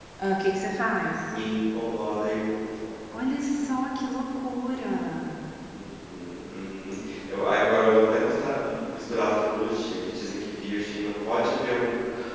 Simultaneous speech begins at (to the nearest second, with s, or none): none